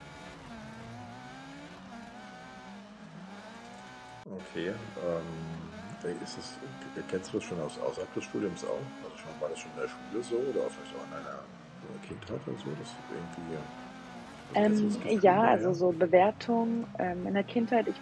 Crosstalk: present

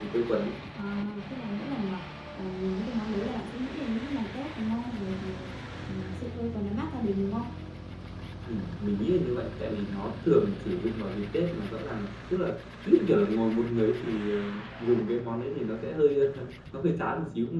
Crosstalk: none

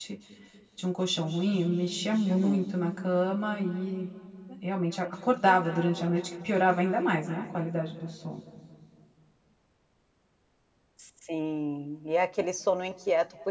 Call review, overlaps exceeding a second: none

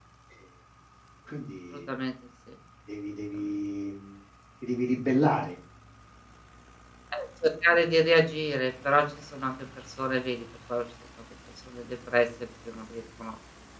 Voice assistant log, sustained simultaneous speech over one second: none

